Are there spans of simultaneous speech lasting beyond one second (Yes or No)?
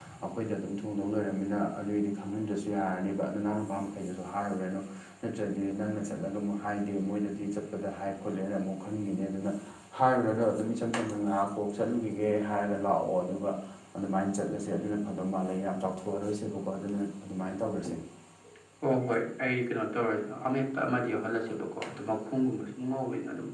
No